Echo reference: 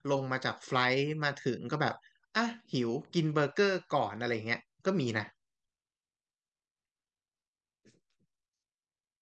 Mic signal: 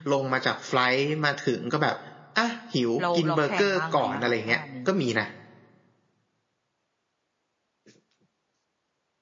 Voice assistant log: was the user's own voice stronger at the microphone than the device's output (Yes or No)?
No